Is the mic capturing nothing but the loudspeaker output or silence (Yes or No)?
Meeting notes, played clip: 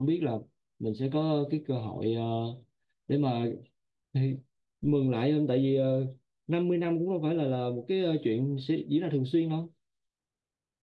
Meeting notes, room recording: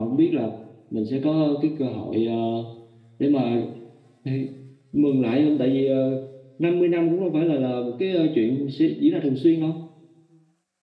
Yes